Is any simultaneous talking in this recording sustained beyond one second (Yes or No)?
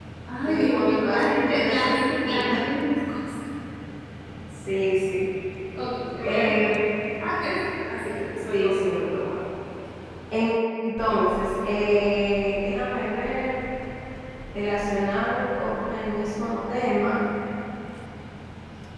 Yes